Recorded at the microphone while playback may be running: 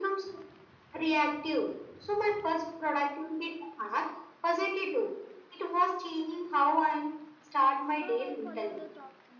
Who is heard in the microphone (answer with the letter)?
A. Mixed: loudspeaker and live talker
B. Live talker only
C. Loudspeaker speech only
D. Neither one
A